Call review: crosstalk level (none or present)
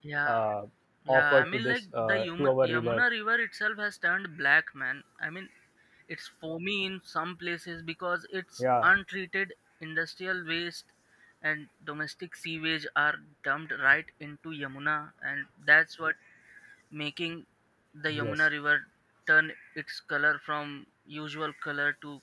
present